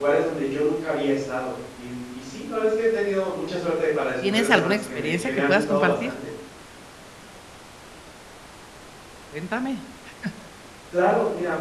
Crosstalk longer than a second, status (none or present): present